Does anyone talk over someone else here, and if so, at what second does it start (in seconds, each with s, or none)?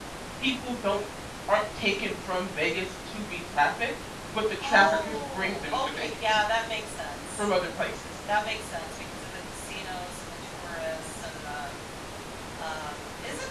4.6 s